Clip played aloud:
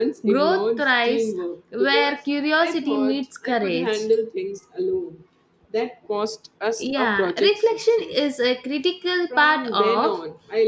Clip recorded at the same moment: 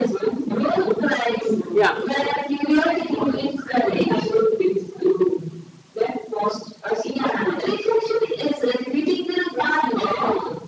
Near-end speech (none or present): present